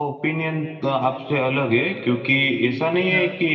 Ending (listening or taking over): listening